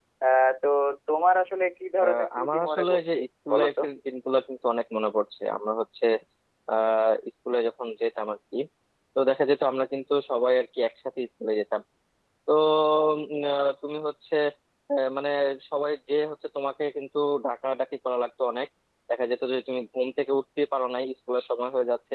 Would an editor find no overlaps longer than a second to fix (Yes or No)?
No